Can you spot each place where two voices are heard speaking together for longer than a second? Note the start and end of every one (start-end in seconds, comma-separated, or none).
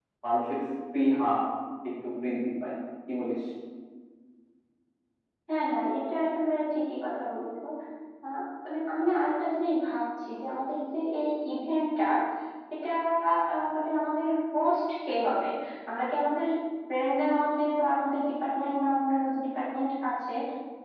none